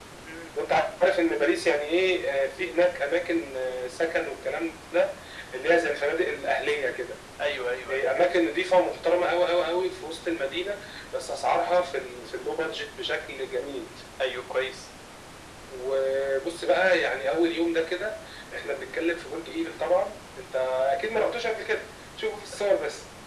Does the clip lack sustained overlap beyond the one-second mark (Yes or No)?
Yes